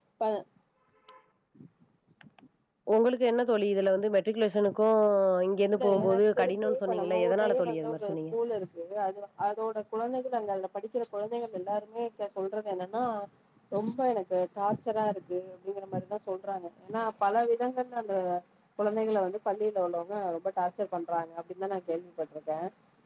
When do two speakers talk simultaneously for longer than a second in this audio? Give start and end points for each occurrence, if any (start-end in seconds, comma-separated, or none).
5.7-8.3